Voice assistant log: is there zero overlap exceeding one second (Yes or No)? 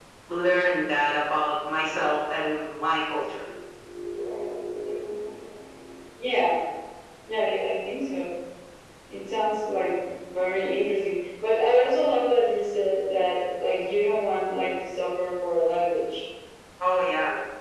Yes